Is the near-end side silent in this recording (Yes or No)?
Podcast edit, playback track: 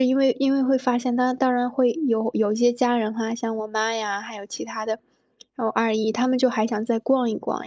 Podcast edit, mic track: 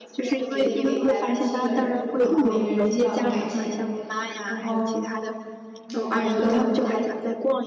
No